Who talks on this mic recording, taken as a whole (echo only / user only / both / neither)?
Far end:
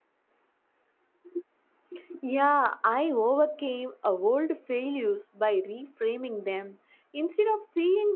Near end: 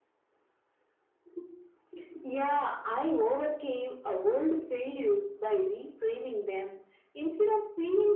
echo only